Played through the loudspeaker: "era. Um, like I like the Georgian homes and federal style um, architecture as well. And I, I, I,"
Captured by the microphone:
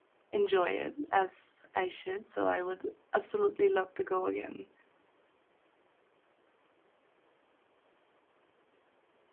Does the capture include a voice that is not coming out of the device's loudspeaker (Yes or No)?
Yes